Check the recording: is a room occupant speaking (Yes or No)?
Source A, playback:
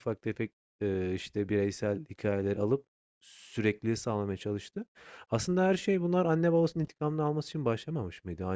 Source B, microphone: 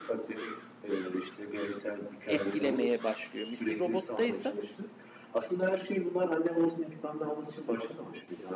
Yes